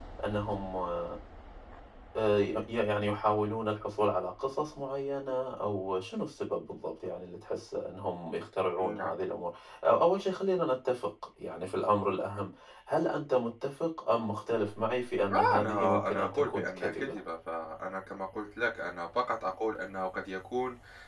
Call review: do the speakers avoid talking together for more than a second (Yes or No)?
No